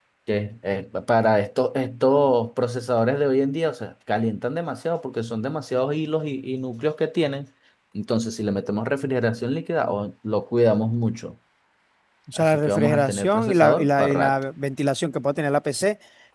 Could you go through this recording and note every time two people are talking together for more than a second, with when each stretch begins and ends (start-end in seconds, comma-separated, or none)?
12.4-14.3